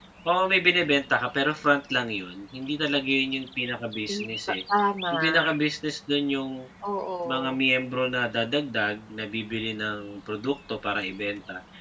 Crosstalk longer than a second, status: none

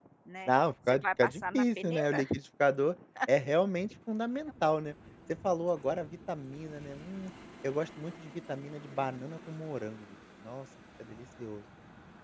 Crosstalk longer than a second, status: present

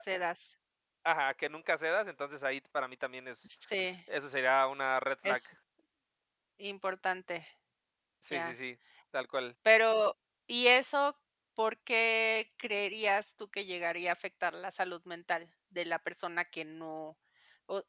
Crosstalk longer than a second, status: none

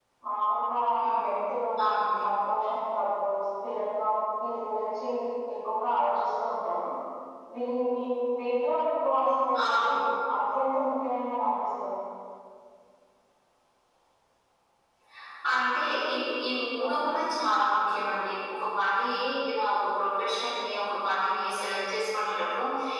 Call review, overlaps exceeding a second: none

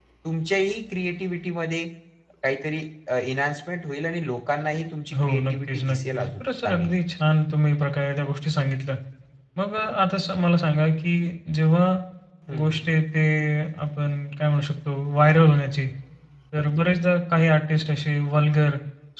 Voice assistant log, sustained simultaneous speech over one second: present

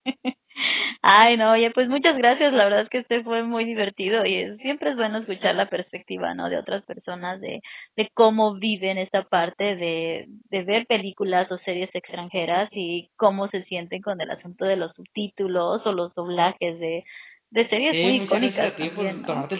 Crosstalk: present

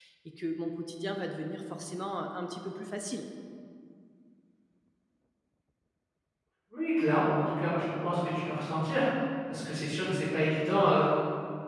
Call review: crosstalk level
none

